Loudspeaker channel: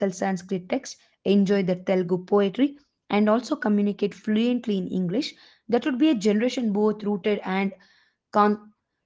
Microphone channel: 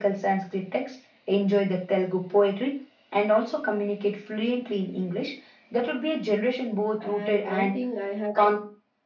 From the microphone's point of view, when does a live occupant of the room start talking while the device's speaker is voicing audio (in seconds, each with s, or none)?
7.0 s